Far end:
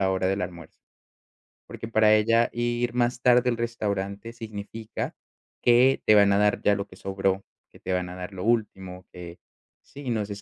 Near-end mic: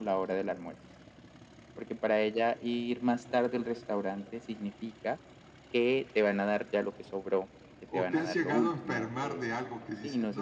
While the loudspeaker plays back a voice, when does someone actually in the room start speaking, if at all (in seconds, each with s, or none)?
7.9 s